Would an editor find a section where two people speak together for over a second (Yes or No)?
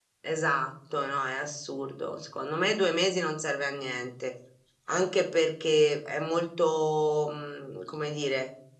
No